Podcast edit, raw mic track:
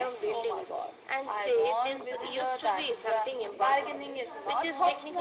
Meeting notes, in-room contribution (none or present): present